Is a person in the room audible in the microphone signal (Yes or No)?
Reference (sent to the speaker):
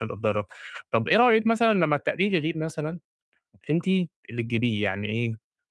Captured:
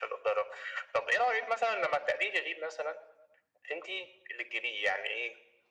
No